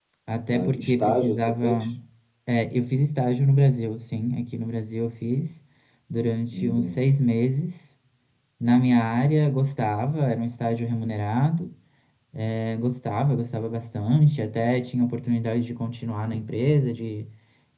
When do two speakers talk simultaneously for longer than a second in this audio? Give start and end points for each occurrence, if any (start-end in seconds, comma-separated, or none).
0.5-1.8